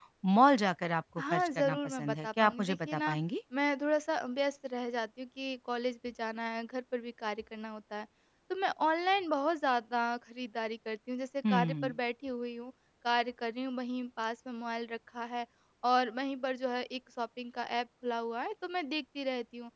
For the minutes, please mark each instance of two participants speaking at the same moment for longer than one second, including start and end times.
1.3-3.2

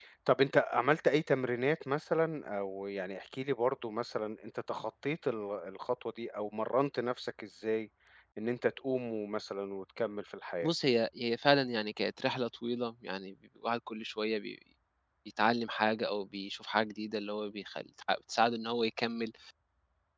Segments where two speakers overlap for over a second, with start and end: none

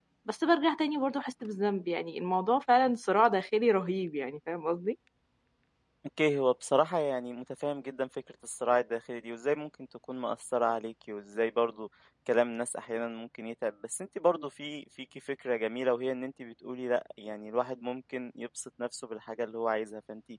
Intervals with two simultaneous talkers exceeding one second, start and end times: none

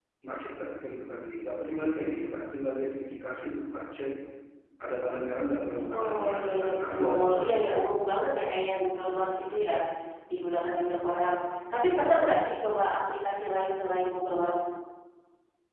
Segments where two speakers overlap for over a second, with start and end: 6.0-7.6

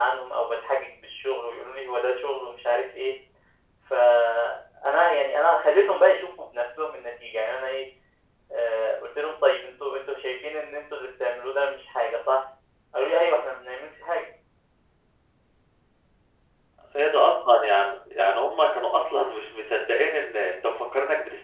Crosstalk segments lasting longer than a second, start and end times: none

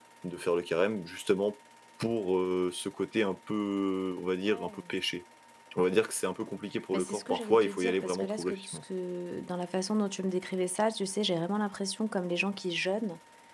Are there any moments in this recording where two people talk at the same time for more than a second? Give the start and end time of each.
6.9-8.8

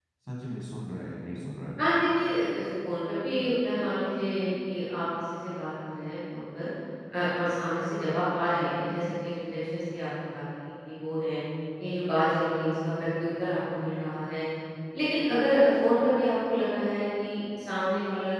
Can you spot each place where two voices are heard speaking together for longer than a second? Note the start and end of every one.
none

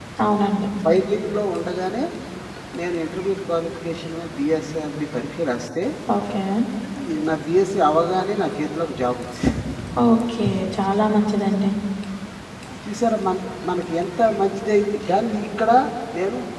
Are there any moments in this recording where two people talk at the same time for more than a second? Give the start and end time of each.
none

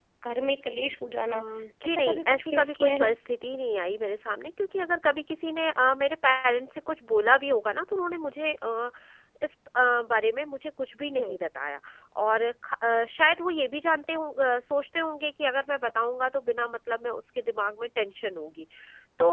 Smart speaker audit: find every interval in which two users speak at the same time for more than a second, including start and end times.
1.8-3.1

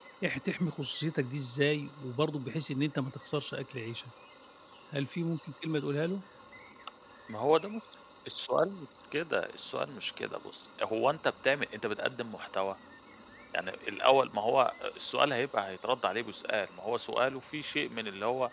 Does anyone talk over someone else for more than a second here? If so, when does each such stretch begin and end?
none

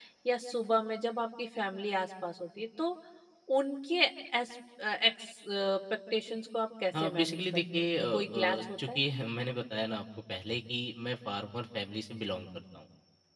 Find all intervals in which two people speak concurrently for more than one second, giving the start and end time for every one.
7.0-9.0

